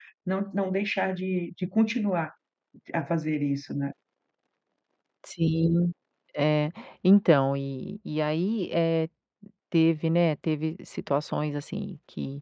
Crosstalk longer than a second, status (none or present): none